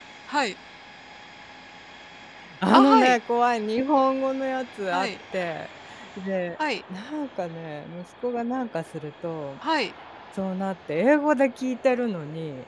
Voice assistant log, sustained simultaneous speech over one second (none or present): none